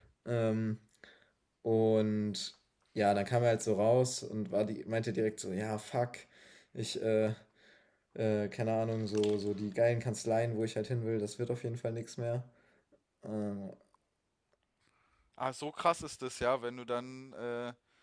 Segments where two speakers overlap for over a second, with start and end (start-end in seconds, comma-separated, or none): none